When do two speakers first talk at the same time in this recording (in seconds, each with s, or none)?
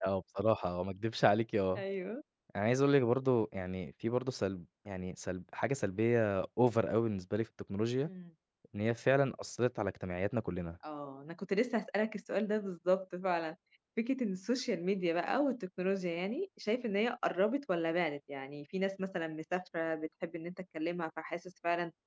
none